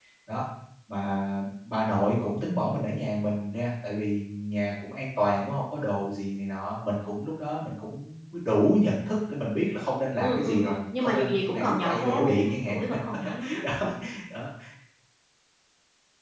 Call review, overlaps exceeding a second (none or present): present